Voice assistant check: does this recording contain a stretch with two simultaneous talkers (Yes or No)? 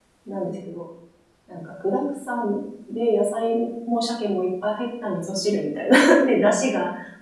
No